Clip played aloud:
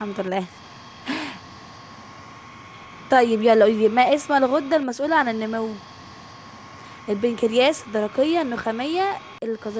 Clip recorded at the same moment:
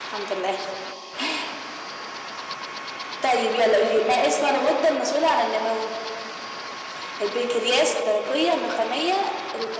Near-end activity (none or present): none